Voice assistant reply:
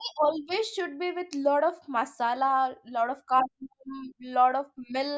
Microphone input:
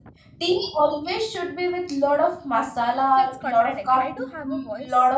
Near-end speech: present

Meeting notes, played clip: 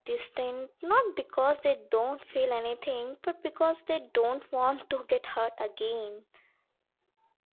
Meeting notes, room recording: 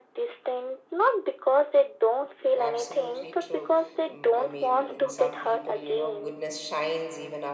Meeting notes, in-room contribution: present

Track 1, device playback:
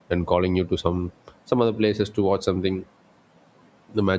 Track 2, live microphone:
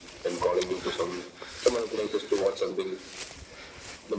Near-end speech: none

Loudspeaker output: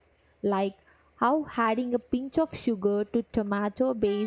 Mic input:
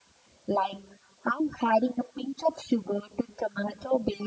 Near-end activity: none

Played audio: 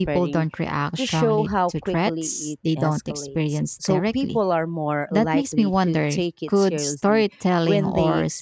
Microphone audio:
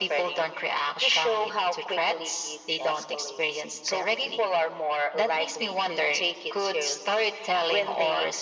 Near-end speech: none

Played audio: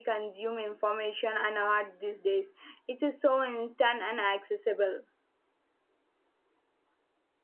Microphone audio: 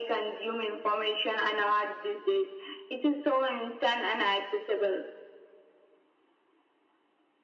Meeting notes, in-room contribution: none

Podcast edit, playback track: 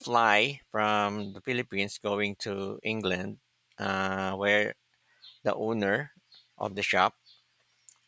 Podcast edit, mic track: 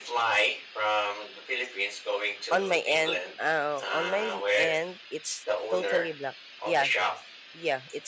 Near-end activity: present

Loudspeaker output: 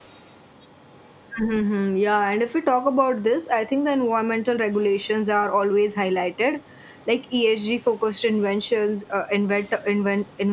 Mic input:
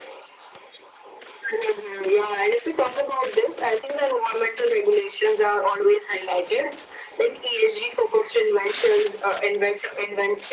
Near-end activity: none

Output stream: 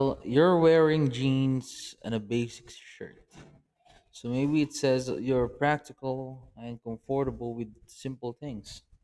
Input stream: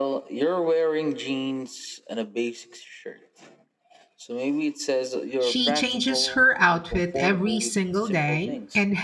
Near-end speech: present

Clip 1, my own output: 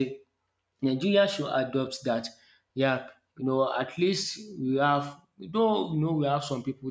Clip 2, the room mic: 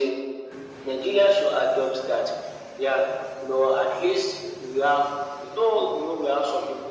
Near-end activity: none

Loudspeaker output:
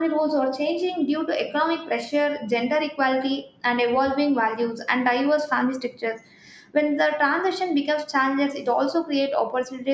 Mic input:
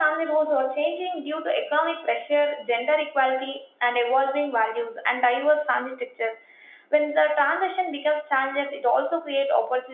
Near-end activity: none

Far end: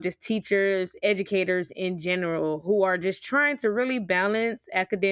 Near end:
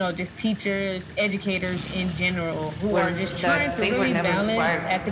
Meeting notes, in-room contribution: present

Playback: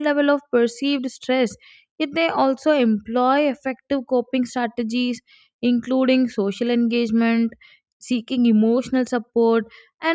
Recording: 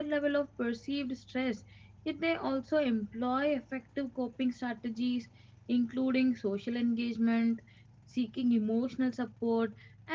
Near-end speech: none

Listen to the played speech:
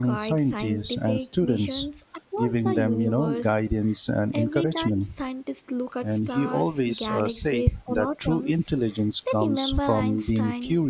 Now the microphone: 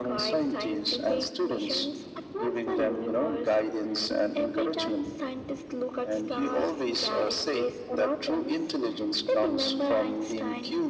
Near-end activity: none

